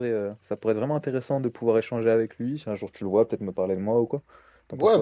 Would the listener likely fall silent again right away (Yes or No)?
No